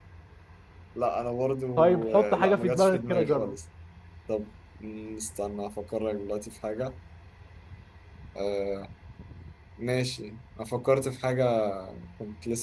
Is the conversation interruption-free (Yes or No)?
No